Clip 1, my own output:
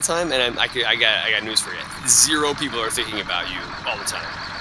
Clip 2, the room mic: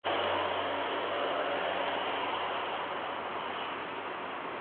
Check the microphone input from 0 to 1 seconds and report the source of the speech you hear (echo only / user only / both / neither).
neither